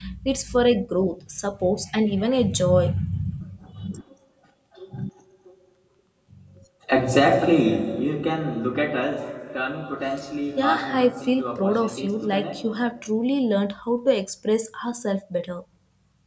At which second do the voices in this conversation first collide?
10.6 s

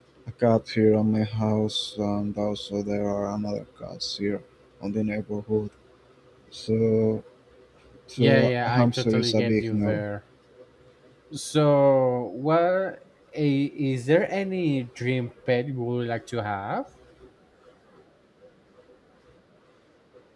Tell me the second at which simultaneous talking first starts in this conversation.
8.2 s

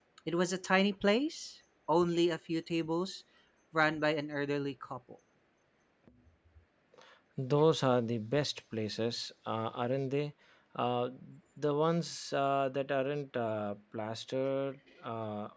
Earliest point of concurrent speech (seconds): none

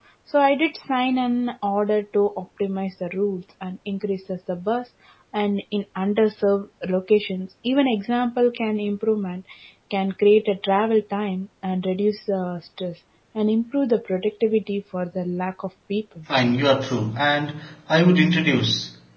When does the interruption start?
none

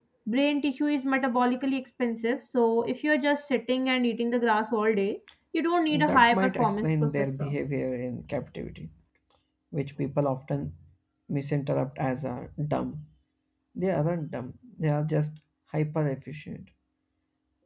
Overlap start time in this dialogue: 5.9 s

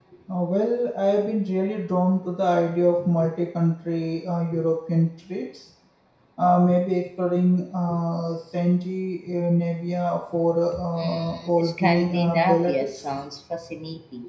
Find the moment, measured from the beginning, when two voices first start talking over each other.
10.7 s

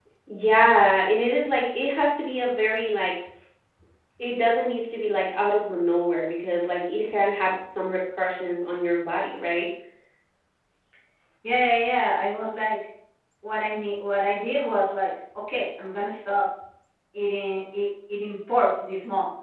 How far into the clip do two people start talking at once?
none

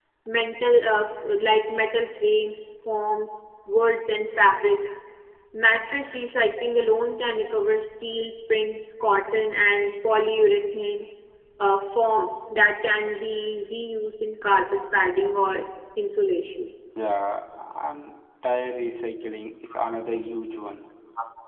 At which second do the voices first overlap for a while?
none

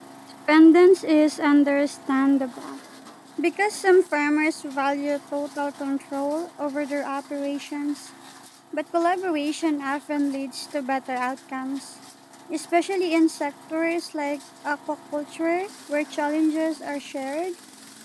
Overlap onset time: none

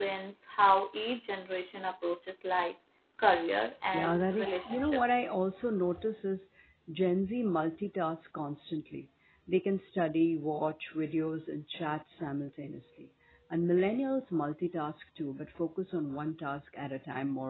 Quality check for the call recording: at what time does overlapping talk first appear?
3.9 s

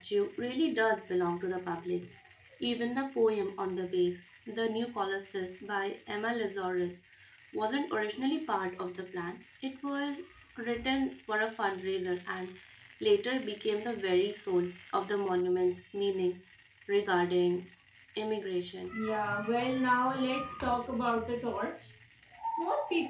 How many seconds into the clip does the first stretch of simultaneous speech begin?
none

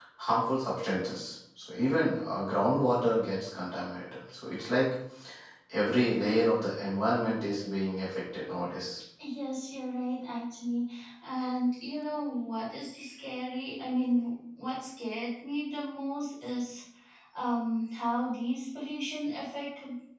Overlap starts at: none

